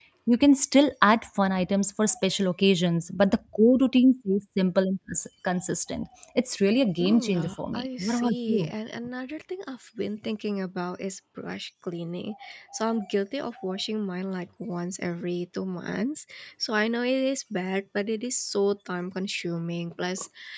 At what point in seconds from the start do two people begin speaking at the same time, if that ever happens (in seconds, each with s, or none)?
7.0 s